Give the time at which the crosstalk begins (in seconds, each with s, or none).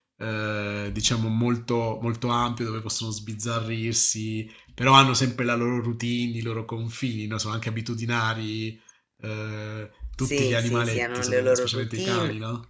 10.2 s